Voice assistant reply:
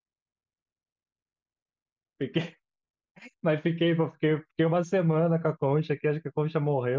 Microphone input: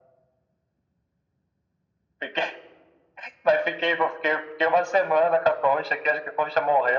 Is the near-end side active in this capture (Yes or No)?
No